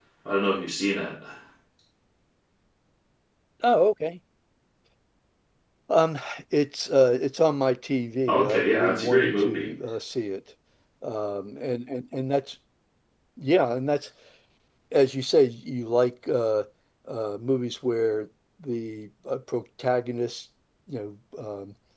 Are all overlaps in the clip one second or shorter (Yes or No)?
No